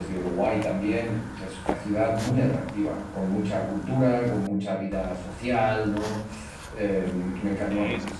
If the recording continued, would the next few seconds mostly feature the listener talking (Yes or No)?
No